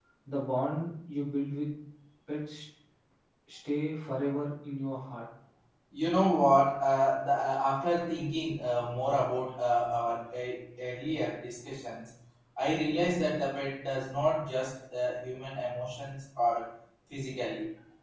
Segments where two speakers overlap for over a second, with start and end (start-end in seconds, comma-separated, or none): none